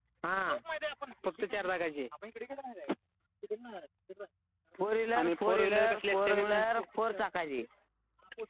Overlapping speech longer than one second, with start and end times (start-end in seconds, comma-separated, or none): 5.2-6.6